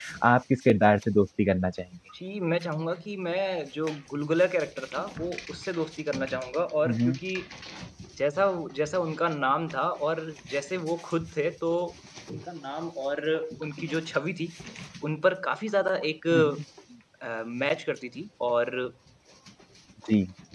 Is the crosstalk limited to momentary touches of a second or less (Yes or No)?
Yes